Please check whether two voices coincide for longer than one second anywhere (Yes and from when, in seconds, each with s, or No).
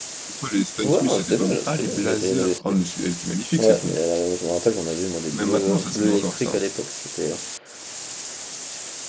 Yes, from 0.8 s